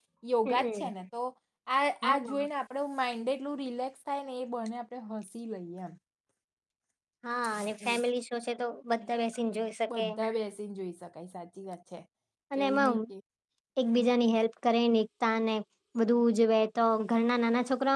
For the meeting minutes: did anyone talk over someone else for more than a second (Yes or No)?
No